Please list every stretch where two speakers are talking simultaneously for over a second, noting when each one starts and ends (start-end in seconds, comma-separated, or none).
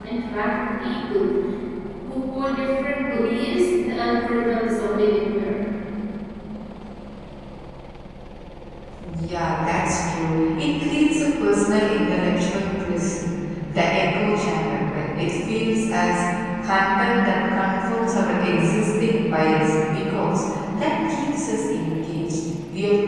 none